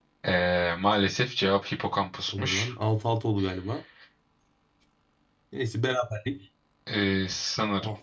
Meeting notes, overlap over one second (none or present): none